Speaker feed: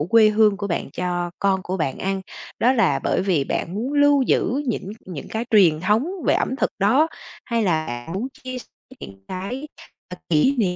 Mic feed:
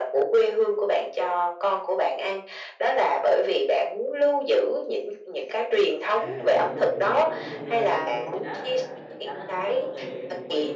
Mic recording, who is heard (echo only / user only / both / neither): both